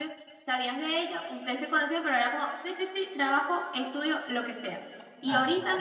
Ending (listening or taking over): listening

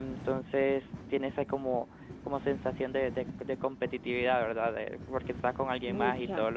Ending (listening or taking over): listening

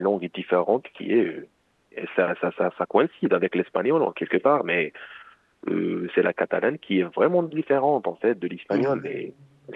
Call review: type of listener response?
listening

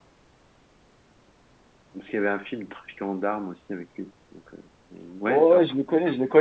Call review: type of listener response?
taking over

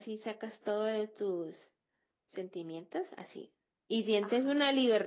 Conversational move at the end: listening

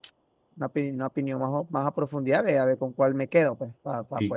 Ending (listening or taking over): taking over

